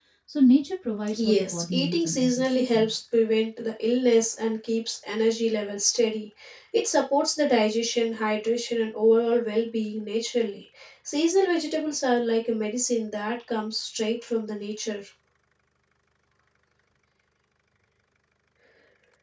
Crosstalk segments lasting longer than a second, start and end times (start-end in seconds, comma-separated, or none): 1.2-2.9